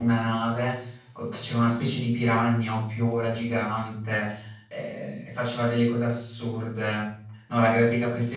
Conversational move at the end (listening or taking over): listening